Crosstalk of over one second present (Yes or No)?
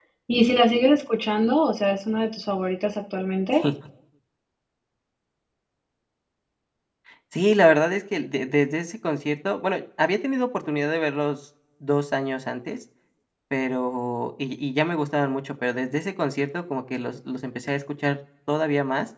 No